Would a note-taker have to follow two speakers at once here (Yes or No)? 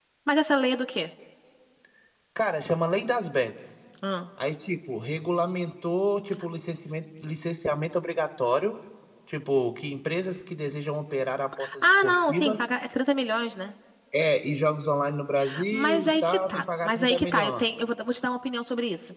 Yes